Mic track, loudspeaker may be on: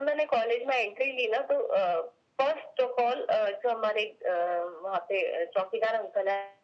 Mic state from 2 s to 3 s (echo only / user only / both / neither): echo only